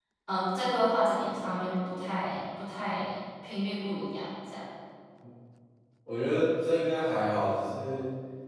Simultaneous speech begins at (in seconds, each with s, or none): none